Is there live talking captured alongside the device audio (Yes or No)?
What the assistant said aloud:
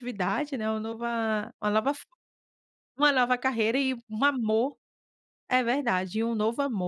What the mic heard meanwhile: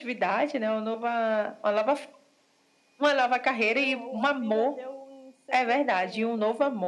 Yes